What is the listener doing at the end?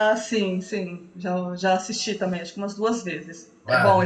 taking over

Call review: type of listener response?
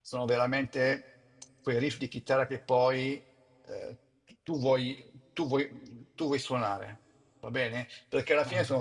listening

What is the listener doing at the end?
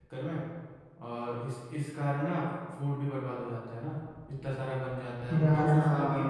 listening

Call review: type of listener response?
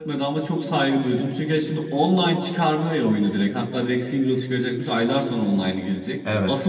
listening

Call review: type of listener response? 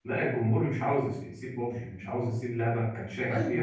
taking over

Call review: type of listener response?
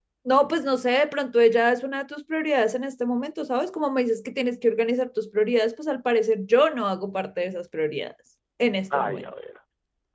taking over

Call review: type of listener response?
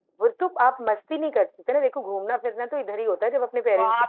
taking over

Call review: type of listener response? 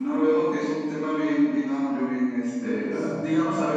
listening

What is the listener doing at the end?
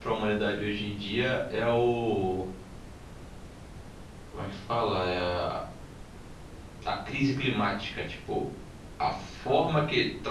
listening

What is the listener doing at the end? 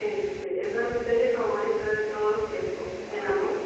listening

